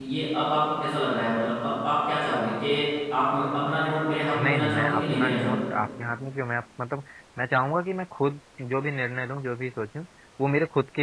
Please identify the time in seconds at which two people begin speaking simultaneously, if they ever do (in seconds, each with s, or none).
4.3 s